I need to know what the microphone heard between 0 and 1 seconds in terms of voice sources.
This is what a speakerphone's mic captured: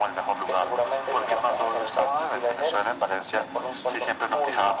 echo only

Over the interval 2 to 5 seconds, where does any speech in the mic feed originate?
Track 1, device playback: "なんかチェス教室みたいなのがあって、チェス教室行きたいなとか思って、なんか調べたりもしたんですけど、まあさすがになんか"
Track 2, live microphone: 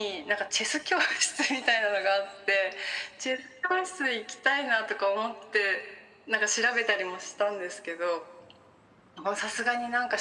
echo only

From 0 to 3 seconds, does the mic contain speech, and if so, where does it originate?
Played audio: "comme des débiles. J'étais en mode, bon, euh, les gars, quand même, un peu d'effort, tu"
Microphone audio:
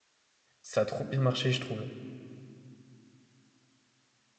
user only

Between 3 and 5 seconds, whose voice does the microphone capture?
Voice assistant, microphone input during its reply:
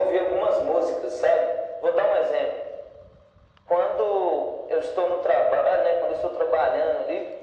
echo only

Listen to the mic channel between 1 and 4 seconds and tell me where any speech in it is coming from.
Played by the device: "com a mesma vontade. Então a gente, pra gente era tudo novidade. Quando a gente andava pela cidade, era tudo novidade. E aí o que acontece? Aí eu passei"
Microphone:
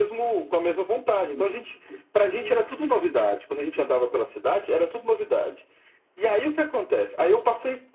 echo only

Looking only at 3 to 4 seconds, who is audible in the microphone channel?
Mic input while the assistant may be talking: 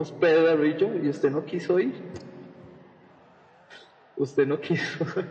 neither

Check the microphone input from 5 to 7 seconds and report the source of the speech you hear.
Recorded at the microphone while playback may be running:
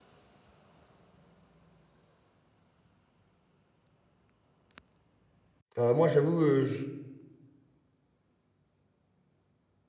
user only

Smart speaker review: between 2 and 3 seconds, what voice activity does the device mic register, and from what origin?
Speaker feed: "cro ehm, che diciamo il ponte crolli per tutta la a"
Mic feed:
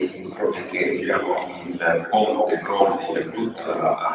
echo only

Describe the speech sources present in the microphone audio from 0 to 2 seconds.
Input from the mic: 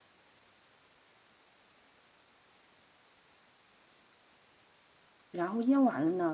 neither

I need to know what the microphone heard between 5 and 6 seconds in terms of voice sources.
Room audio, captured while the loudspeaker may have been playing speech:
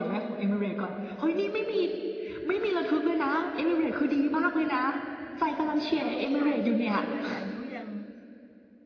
both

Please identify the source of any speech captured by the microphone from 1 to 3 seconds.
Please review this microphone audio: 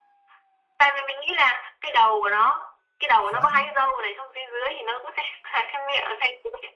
echo only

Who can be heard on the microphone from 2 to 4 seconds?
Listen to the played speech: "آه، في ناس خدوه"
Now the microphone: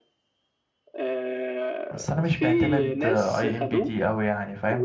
both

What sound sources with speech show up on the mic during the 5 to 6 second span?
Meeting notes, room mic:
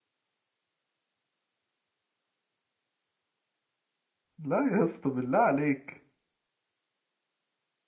user only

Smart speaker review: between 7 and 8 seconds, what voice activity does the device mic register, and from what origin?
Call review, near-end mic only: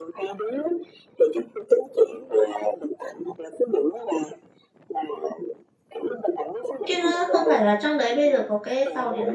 both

